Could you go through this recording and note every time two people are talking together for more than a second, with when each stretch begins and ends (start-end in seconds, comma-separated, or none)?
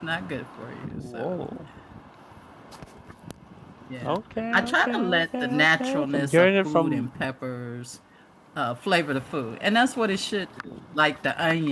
4.5-7.1